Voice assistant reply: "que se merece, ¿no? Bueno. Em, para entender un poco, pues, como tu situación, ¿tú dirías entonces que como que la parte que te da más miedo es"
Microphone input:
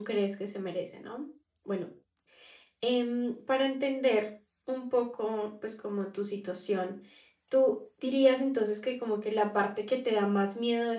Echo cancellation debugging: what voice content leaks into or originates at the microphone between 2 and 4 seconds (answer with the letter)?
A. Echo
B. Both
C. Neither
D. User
A